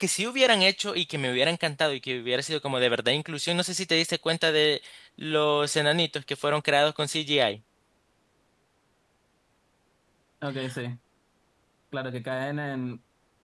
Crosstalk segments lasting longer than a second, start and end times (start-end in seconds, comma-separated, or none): none